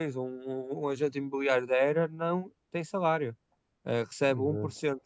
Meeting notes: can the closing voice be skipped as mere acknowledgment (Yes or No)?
Yes